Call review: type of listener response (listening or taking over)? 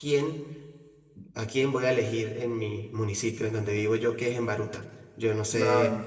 listening